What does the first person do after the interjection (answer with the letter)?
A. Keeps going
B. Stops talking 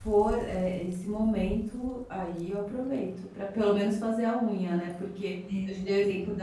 A